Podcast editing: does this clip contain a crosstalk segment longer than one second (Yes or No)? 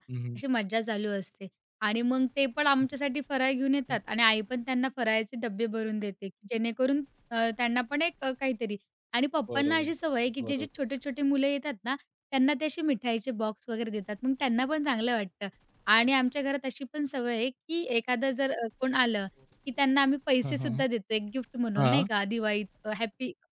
No